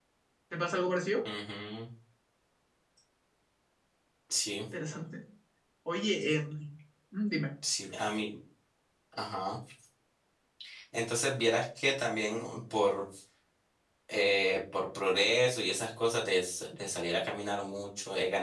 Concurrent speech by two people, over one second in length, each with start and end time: none

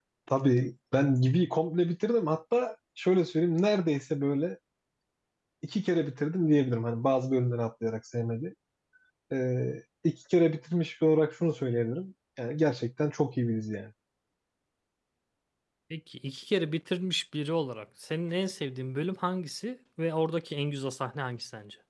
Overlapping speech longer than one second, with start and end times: none

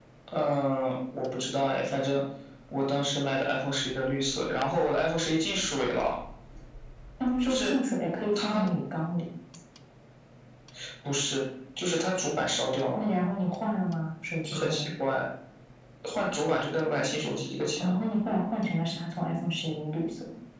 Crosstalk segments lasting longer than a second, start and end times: none

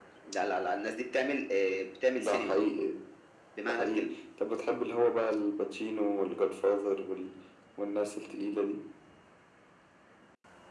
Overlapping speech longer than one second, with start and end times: none

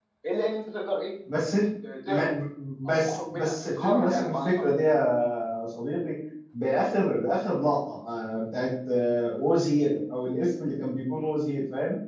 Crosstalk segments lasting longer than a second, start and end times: 2.9-4.7

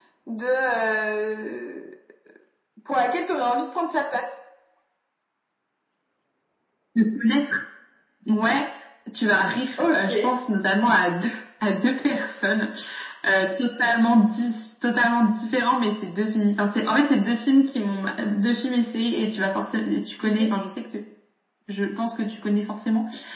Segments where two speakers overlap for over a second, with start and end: none

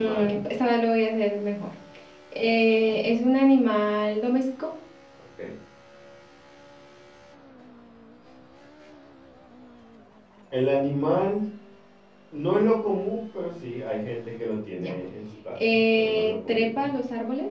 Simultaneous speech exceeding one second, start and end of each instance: 15.6-16.9

